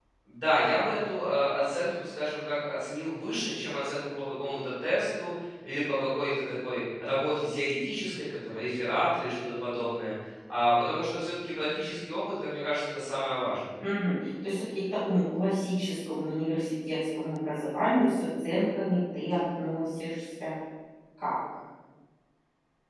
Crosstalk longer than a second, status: none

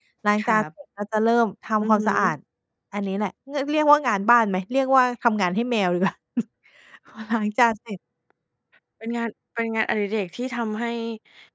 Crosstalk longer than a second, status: none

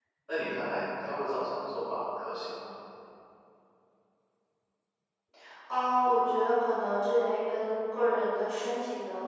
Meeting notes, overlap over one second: none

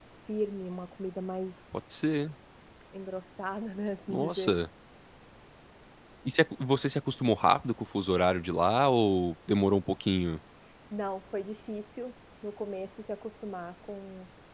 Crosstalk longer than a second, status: none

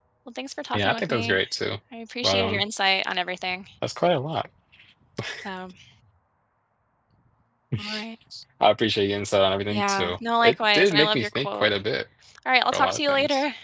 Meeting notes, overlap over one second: present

